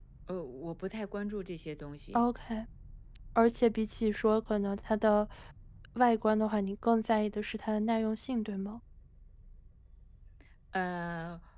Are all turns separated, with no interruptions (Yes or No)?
Yes